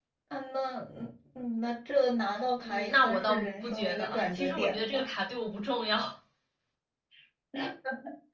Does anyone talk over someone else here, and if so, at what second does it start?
2.6 s

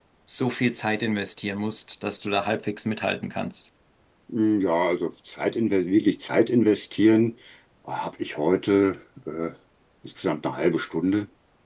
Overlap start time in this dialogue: none

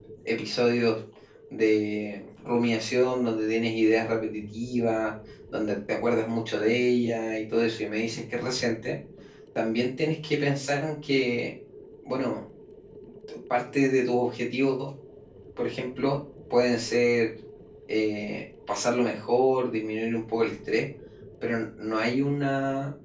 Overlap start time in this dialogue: none

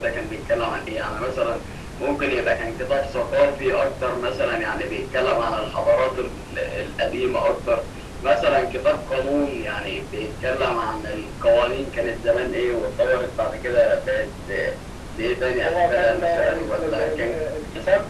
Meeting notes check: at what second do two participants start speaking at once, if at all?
15.6 s

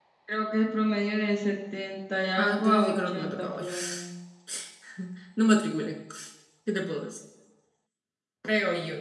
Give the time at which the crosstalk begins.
2.4 s

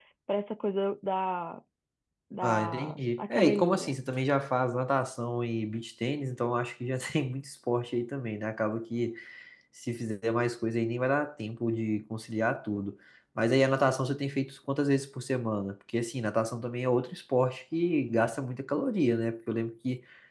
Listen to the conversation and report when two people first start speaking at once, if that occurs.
2.4 s

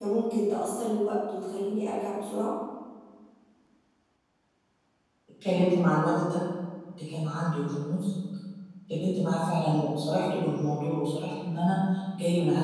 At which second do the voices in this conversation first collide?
none

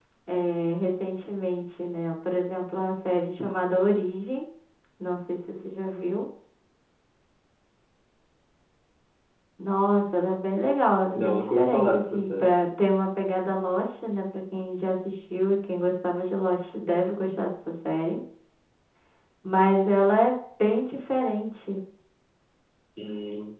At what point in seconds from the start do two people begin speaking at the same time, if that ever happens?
11.1 s

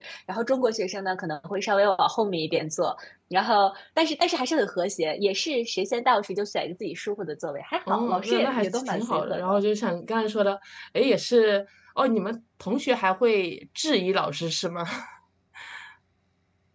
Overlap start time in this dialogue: 7.9 s

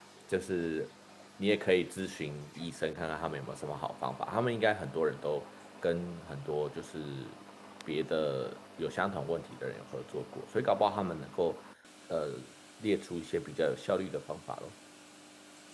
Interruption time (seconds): none

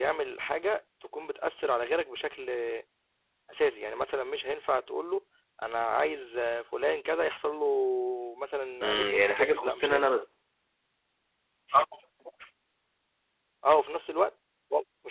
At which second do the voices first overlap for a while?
8.8 s

